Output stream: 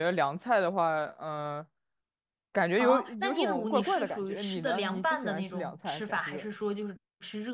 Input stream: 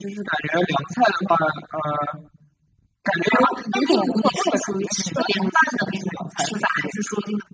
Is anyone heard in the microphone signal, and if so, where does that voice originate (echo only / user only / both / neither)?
echo only